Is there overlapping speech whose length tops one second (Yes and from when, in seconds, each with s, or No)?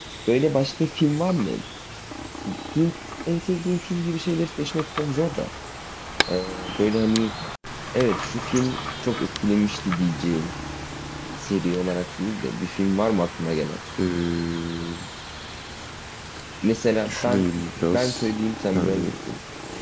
No